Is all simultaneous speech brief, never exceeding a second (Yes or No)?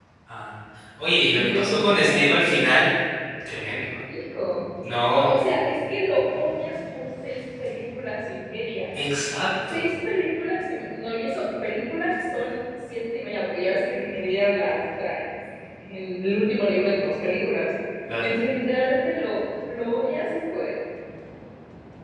No